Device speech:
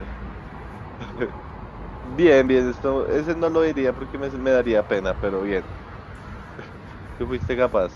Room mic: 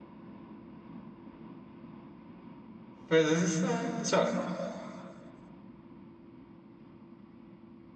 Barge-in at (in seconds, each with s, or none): 3.1 s